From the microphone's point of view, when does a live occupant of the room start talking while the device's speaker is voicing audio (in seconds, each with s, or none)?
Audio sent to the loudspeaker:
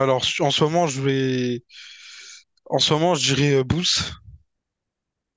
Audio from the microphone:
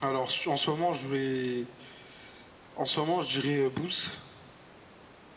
none